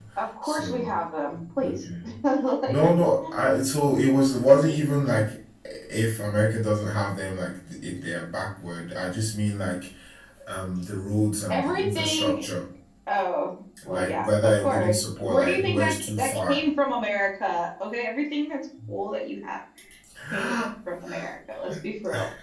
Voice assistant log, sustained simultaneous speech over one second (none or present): present